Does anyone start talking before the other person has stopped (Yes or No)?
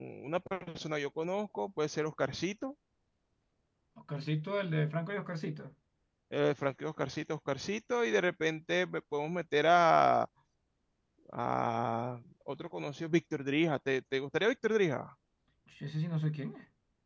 No